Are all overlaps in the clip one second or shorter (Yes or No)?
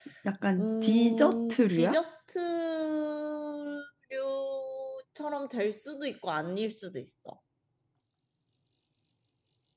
No